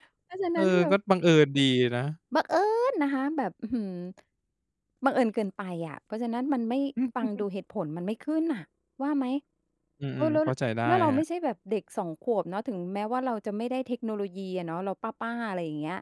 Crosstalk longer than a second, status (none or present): none